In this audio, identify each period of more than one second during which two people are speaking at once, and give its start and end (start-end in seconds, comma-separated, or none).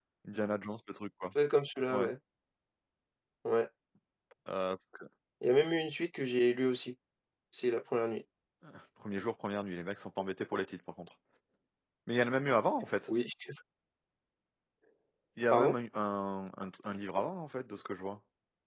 none